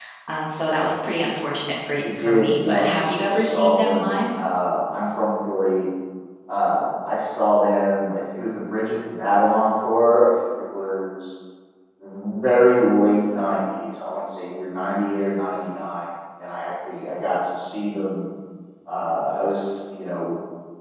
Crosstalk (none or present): present